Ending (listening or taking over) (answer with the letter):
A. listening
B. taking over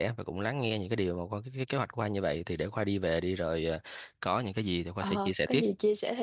B